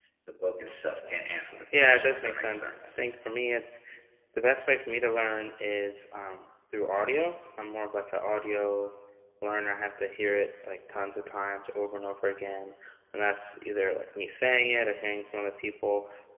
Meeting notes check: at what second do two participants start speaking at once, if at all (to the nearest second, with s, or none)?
2 s